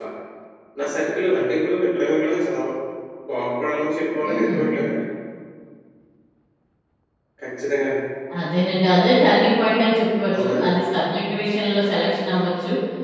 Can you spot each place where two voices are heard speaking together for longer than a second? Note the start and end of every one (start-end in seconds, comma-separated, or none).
none